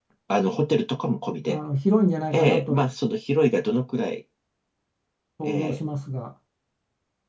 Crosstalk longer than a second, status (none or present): none